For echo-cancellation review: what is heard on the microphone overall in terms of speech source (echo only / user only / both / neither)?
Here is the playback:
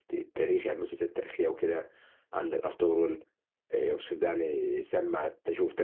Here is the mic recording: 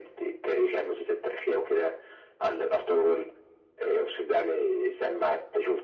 echo only